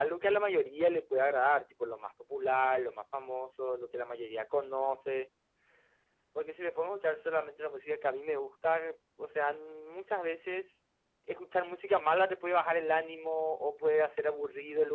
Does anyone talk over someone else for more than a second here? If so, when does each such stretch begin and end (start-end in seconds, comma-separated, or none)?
none